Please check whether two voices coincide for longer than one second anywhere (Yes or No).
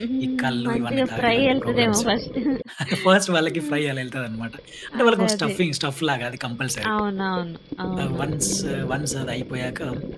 Yes